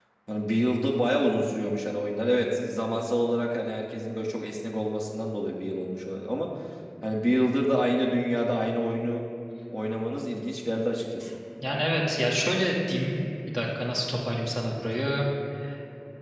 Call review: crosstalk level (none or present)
none